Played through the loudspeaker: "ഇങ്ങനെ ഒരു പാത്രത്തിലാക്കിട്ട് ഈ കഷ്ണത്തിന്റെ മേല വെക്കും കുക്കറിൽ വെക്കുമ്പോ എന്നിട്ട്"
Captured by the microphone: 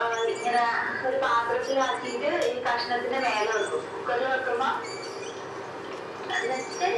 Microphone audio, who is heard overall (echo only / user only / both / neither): echo only